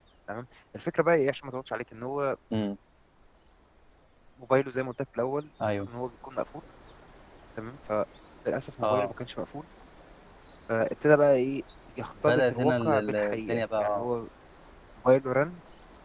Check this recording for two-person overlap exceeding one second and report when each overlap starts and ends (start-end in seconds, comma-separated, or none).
12.2-14.1